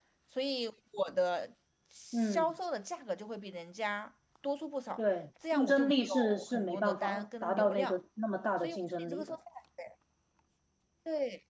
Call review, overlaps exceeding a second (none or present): present